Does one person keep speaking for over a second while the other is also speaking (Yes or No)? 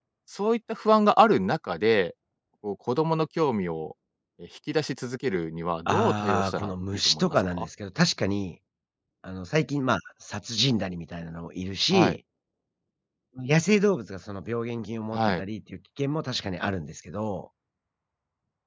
Yes